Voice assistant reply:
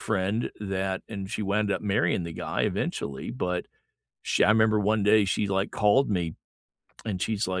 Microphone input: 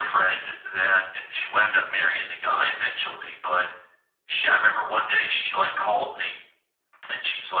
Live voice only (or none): none